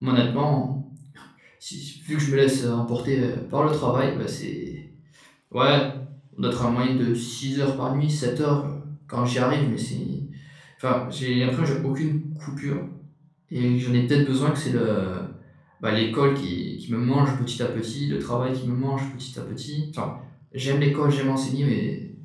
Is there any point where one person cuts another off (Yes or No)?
No